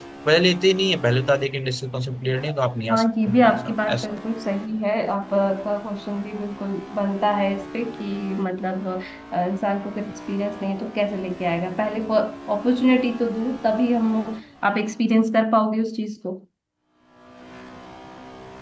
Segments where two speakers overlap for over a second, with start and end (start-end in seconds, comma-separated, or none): 2.9-4.1